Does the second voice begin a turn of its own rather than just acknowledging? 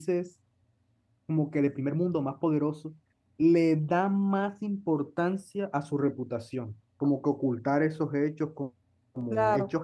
No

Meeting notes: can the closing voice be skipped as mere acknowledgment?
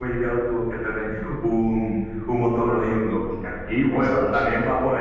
Yes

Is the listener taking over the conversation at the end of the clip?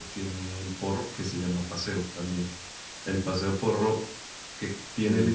No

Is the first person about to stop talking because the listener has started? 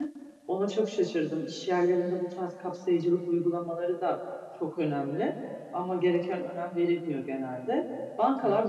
No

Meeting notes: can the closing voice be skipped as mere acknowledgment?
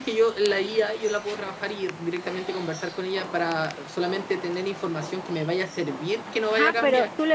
No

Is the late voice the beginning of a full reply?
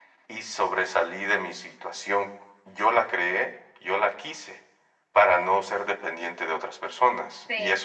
No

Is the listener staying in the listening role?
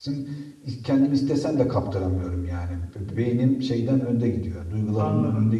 No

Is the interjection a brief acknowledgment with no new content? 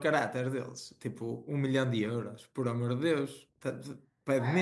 No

